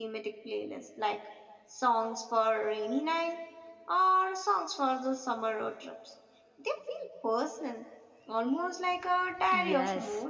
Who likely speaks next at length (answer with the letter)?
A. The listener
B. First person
A